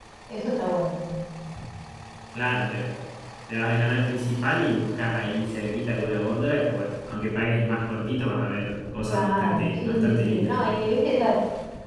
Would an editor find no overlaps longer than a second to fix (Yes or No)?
No